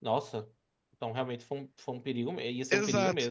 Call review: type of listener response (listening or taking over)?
taking over